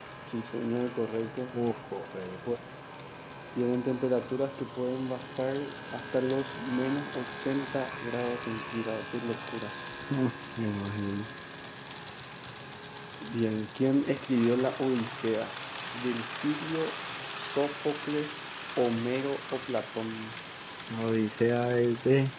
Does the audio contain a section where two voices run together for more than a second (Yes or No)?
No